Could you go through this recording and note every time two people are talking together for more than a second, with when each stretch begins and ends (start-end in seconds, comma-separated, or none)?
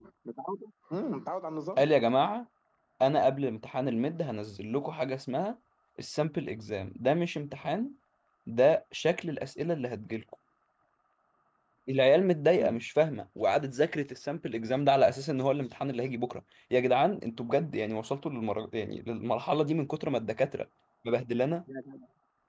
none